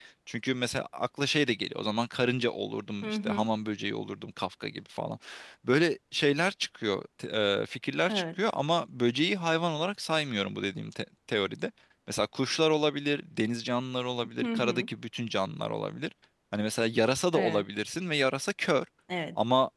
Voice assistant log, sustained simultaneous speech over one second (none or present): none